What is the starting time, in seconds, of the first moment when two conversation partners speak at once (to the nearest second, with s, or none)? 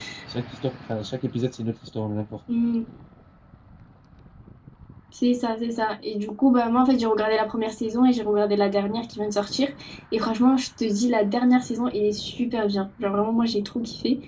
none